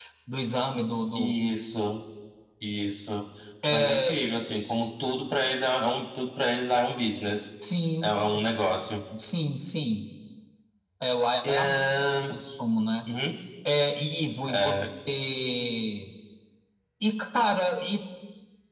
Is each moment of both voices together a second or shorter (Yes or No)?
Yes